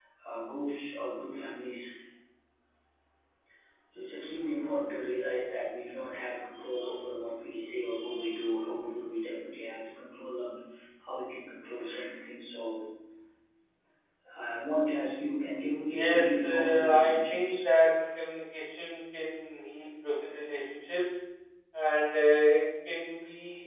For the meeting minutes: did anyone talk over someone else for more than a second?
Yes, from 15.9 s

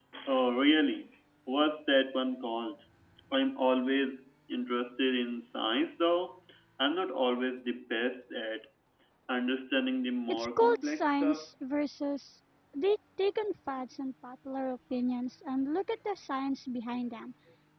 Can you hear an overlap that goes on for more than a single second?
Yes, from 10.3 s

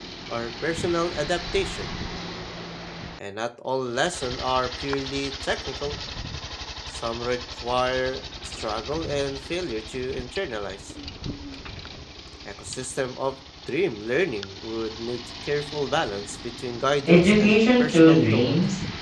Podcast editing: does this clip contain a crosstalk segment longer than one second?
Yes, from 17.1 s

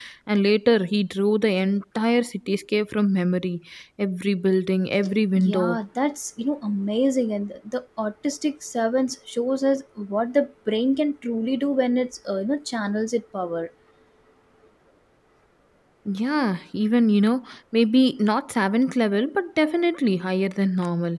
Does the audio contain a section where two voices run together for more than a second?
No

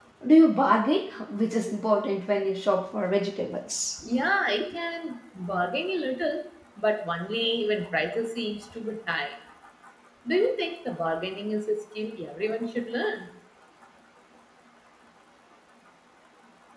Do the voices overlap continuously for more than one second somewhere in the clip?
No

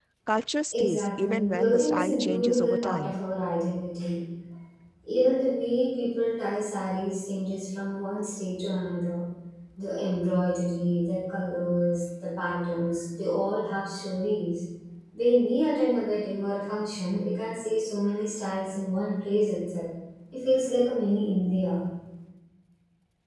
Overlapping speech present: Yes, from 0.7 s

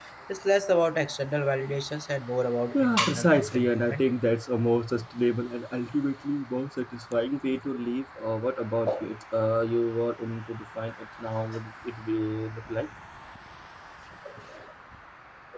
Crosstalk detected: Yes, from 2.7 s

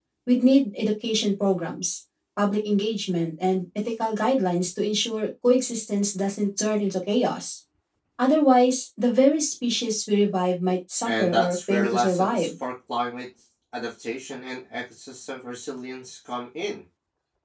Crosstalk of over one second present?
Yes, from 11.0 s

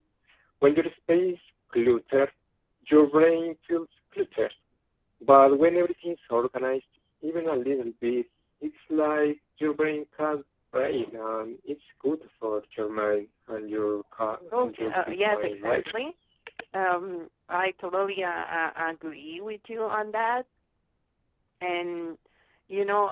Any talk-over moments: Yes, from 14.5 s

